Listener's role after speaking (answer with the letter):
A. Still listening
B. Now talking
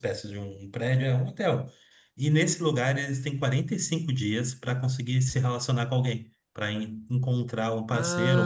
B